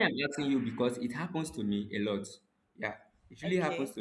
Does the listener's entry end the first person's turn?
No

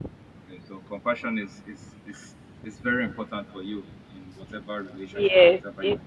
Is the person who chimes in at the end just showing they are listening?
No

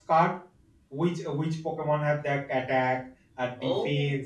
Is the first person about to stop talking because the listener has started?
No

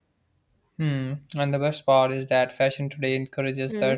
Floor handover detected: No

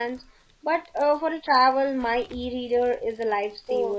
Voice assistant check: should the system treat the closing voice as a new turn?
Yes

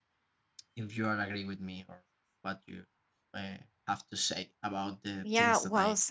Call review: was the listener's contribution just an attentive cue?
No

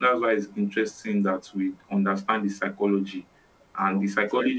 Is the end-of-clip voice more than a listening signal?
No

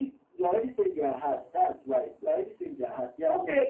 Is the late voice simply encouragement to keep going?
No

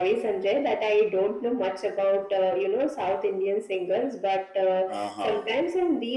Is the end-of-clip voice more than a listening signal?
No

